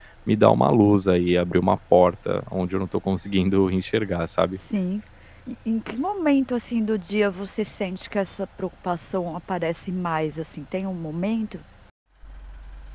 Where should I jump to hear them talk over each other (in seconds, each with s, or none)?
none